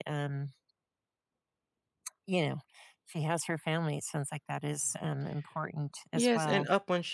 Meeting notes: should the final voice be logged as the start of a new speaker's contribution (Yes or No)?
Yes